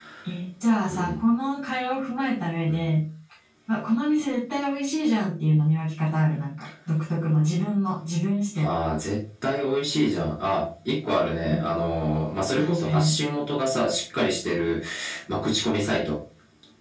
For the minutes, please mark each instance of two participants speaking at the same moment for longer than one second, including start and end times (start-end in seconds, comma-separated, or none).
none